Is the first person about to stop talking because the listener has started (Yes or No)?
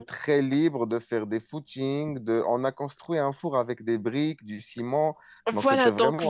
Yes